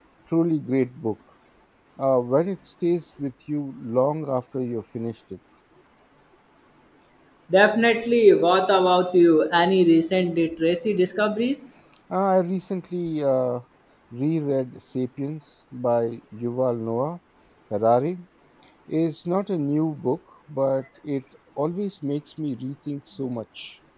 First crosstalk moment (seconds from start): none

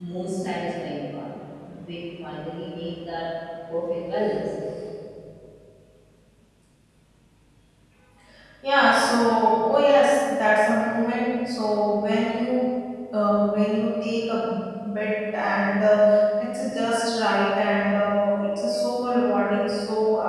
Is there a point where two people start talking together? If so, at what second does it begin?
none

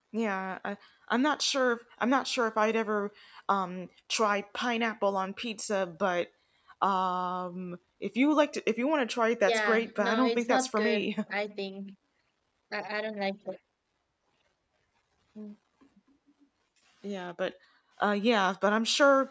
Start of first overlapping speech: 9.5 s

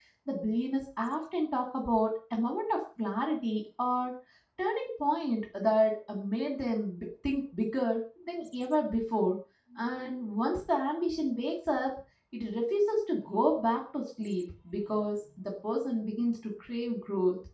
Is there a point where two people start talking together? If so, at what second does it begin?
none

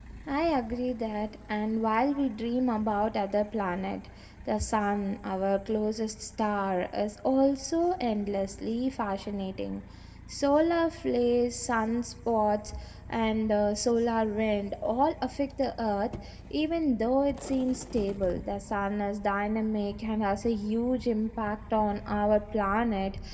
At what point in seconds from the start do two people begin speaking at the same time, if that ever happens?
none

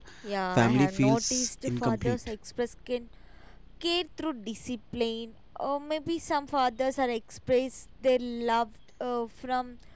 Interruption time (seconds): 0.6 s

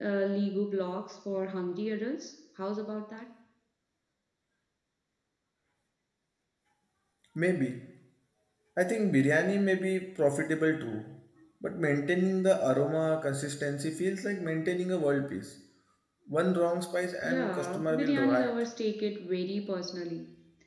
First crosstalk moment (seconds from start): 17.2 s

